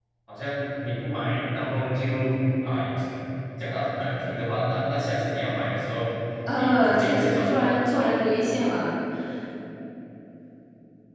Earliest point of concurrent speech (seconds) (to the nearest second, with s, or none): 6 s